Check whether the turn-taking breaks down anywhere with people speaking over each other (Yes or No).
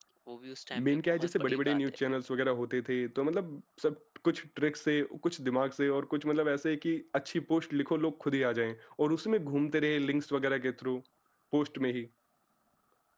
Yes